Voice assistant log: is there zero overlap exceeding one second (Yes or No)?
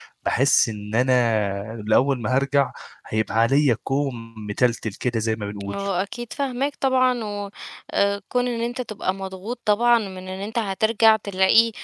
Yes